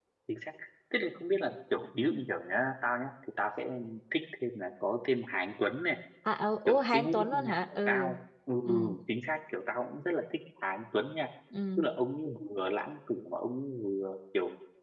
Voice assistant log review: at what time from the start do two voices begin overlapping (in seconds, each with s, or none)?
6.7 s